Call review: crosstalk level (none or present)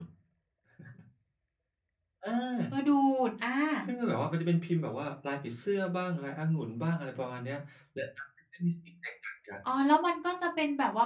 none